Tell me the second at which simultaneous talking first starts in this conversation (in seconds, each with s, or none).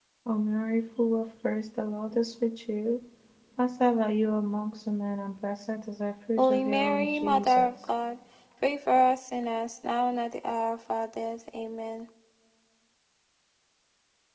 6.4 s